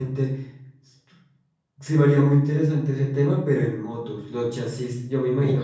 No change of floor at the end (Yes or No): Yes